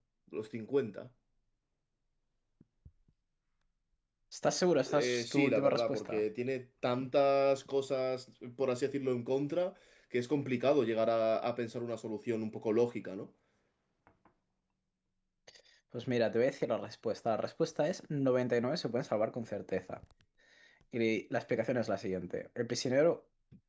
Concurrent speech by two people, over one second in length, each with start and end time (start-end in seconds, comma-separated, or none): 4.9-6.2